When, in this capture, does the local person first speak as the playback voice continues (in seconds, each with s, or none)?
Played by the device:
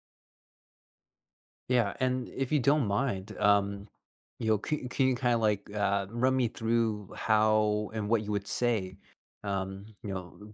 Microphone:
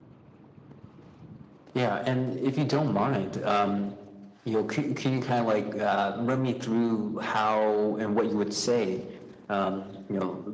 none